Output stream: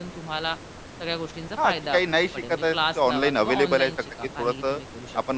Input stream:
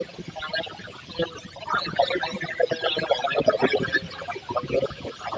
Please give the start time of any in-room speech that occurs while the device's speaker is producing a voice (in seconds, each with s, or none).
none